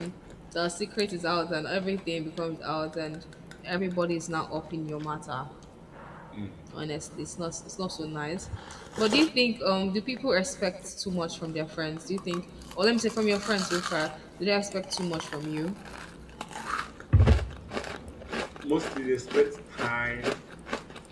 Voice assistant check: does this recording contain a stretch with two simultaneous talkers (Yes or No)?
No